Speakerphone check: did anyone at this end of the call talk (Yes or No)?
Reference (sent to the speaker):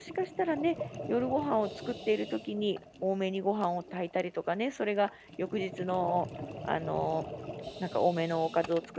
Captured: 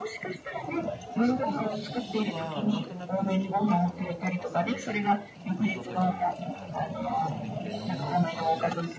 Yes